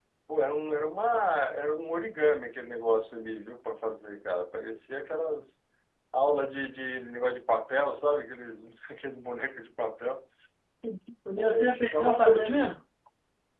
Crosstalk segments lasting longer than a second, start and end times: 11.3-12.6

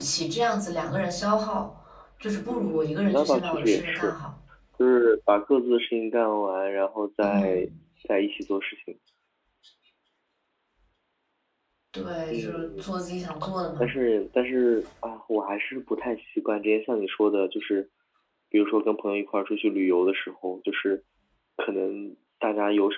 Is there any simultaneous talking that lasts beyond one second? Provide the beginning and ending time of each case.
2.5-4.2

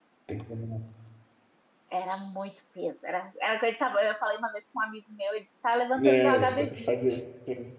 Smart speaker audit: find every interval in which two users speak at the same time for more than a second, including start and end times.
6.0-7.2

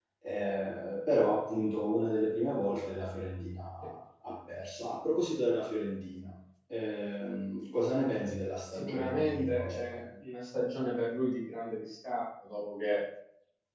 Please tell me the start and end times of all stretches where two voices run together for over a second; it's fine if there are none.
8.7-10.0

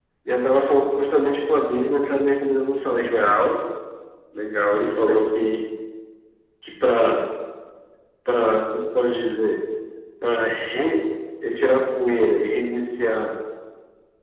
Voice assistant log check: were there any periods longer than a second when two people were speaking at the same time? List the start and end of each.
none

